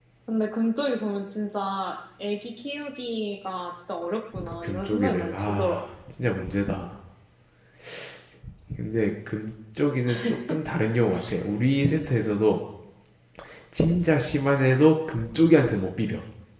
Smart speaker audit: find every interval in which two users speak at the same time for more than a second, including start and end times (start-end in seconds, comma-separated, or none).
4.3-5.8